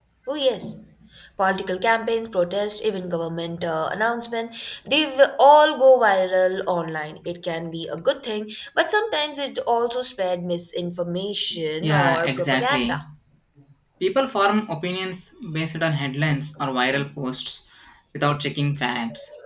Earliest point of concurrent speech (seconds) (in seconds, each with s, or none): 11.8 s